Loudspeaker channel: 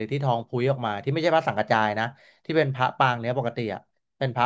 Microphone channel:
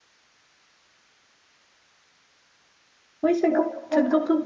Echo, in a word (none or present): none